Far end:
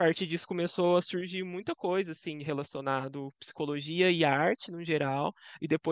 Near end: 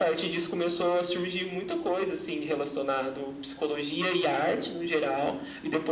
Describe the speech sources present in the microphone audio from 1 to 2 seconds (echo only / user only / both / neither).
echo only